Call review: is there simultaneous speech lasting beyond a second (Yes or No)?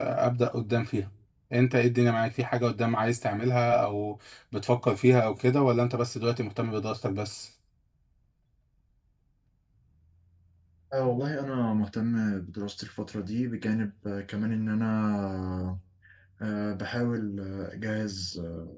No